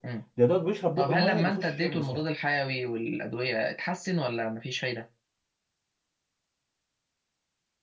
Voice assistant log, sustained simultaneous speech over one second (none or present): present